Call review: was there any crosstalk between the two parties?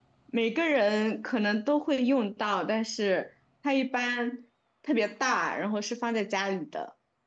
No

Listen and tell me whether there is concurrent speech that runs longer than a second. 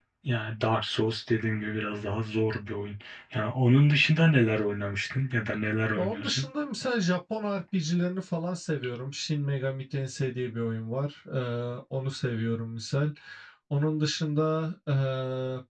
No

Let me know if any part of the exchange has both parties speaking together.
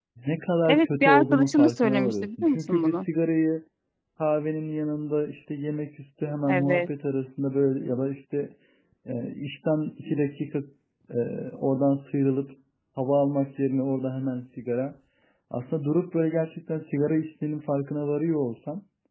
Yes, from 0.6 s

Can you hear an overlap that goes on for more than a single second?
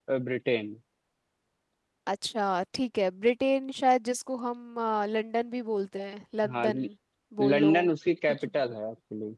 No

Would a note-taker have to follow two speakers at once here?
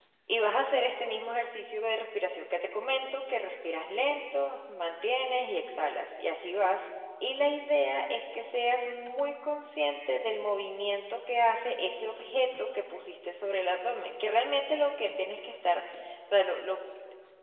No

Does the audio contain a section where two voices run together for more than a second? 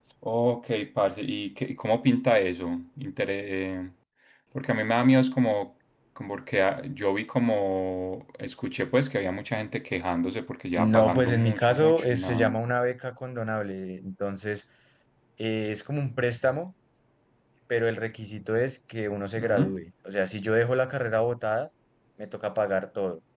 Yes, from 10.8 s

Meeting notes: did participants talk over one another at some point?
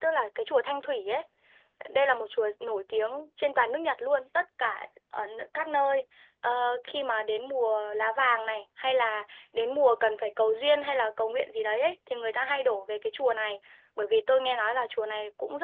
No

